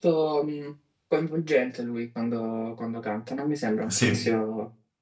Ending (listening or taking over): listening